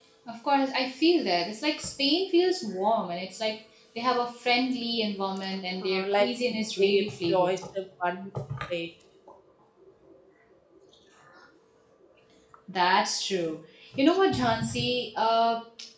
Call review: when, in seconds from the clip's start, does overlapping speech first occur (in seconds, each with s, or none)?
5.8 s